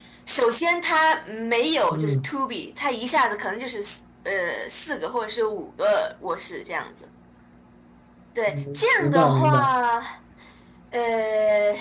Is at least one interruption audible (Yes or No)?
Yes